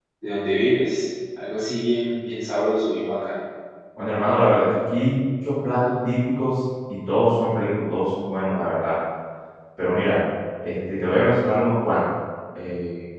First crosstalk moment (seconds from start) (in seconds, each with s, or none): none